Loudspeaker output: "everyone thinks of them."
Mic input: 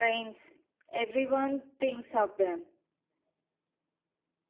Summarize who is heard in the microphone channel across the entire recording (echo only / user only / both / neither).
echo only